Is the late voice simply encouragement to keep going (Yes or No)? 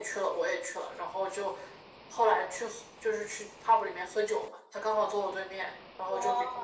Yes